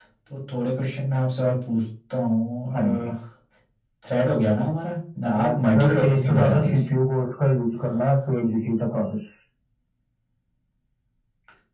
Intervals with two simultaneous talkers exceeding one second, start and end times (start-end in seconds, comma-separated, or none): 5.2-6.8